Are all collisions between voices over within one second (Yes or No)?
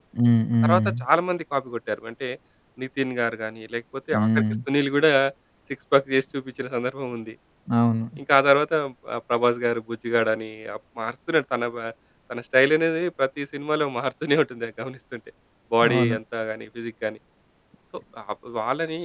Yes